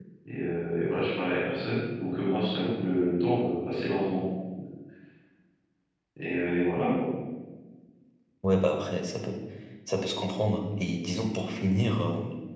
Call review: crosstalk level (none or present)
none